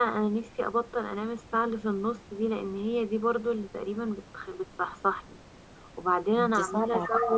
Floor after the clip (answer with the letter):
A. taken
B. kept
B